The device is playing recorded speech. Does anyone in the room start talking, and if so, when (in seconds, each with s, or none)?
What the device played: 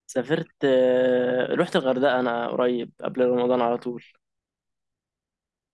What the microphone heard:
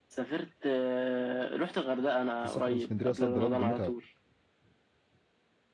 2.4 s